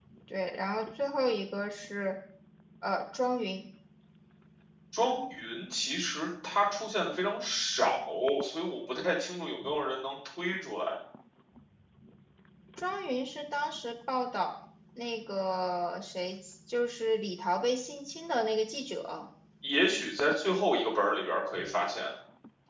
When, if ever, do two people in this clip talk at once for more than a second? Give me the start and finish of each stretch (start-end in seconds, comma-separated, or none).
none